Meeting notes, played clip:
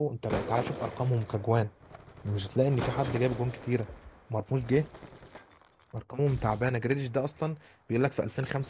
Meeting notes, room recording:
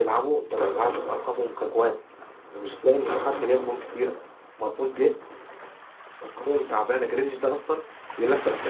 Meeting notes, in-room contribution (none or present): none